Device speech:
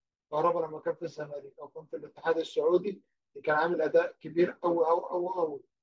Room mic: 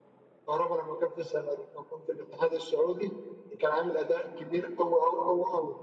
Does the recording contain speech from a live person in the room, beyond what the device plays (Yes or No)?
No